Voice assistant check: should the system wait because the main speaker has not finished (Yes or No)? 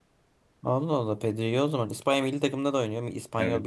No